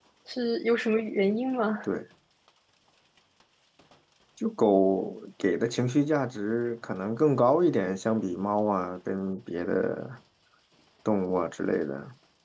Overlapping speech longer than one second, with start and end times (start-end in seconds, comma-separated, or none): none